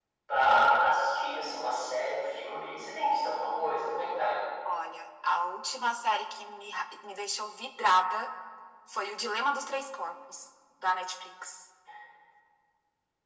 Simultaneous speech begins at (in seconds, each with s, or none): none